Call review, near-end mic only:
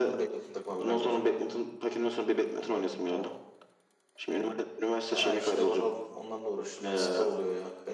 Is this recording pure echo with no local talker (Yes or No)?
No